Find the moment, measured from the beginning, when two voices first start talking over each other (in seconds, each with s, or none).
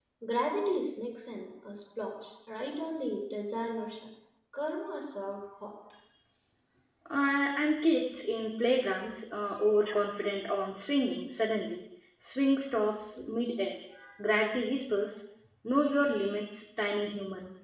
none